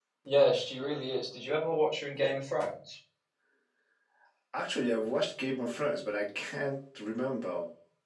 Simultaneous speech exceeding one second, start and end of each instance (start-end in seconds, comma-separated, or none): none